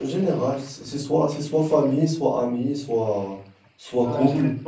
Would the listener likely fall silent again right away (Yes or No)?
No